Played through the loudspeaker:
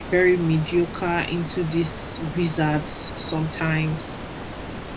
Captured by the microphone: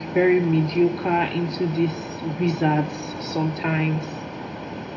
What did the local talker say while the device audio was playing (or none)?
none